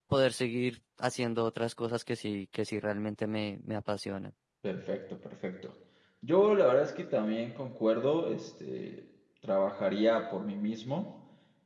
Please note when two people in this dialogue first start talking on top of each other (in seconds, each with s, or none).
none